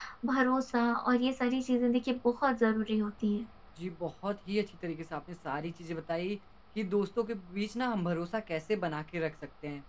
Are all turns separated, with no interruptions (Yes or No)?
Yes